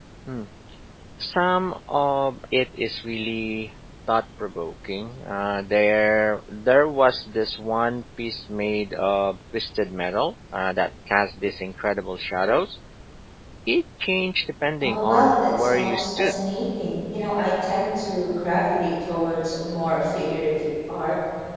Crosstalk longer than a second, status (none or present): present